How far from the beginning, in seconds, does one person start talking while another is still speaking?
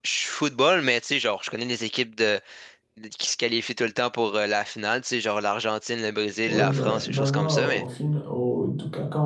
6 s

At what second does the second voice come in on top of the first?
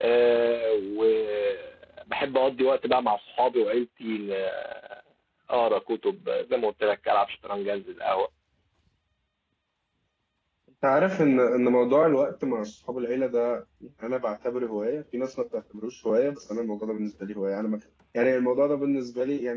none

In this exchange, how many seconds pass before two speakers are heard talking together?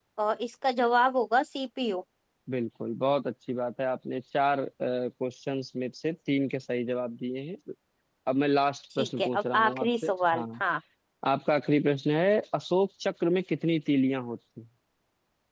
9 s

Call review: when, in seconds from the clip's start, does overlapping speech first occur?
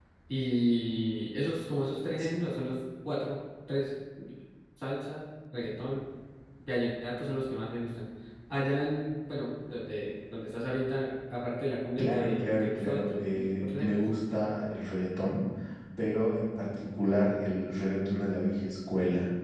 12 s

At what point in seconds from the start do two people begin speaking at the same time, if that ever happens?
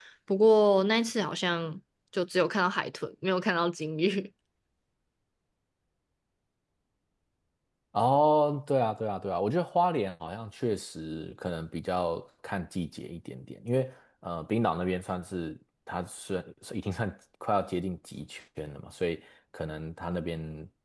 none

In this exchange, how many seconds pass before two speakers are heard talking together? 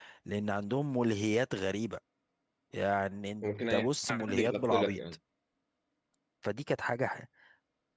3 s

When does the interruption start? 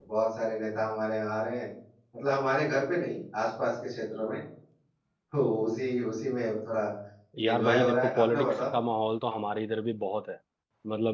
7 s

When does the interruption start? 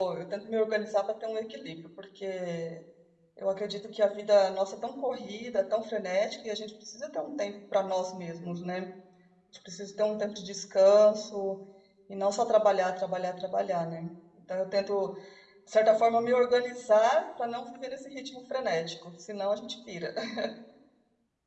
none

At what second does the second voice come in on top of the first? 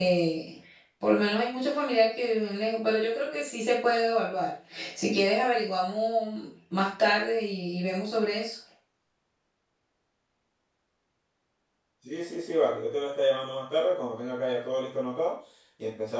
none

